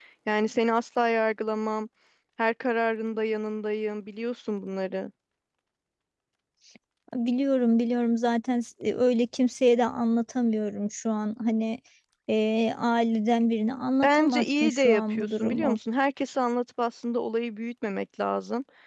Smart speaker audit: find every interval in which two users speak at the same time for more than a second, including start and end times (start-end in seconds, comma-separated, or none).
14.0-15.8